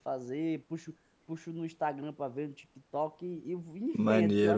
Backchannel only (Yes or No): No